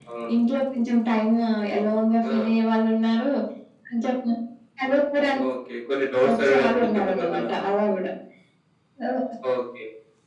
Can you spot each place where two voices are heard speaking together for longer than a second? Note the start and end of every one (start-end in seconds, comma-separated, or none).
6.3-7.5